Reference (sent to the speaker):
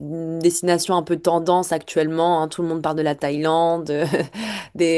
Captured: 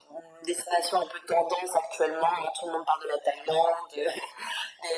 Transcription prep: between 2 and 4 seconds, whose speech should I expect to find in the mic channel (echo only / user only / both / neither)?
echo only